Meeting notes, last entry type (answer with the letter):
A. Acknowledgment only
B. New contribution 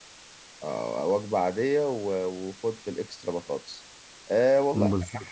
A